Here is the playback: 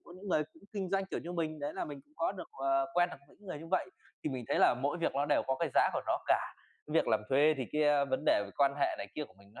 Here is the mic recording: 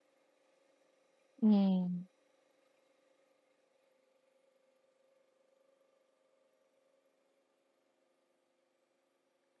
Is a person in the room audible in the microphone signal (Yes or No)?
Yes